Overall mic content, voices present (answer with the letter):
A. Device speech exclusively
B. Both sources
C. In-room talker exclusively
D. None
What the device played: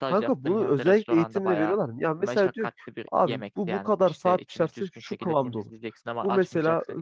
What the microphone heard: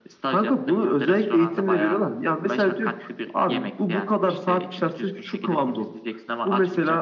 A